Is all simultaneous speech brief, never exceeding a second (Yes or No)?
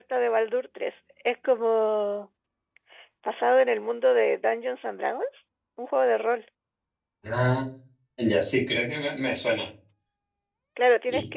Yes